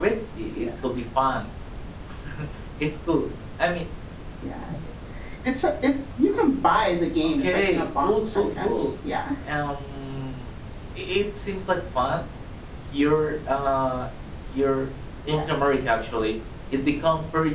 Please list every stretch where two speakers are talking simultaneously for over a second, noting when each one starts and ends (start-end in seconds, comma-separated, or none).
7.4-8.8